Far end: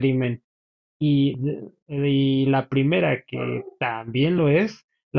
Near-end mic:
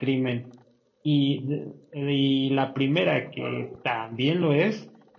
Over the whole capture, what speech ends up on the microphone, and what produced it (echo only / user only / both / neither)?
echo only